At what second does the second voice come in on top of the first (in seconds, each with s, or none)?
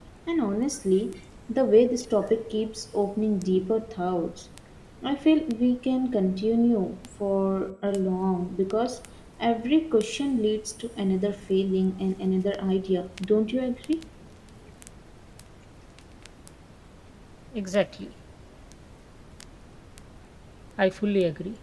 none